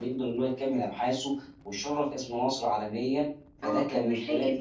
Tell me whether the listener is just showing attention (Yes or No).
No